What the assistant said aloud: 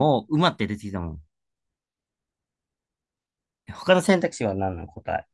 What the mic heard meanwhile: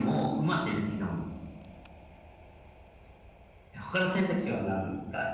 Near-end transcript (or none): none